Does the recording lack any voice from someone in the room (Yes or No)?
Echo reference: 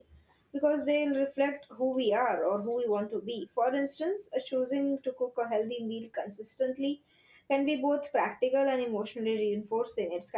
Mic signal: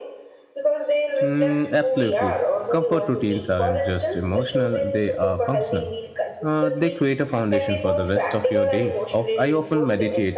No